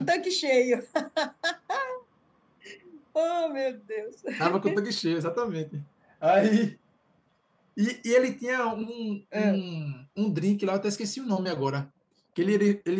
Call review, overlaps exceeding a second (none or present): none